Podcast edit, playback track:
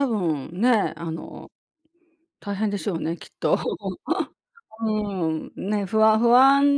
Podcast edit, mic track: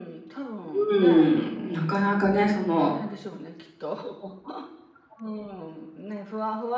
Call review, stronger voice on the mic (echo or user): user